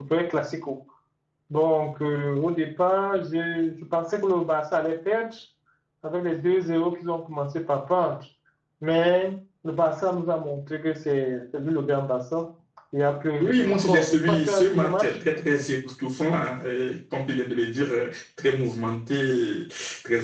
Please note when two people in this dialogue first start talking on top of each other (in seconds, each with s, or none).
13.4 s